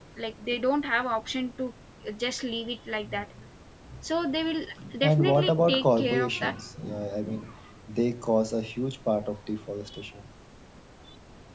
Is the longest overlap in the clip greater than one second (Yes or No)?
Yes